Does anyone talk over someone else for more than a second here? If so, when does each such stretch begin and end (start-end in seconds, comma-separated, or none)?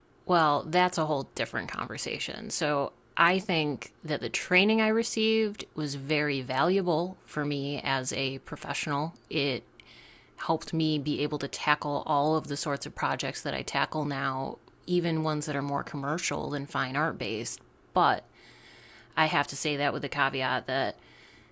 none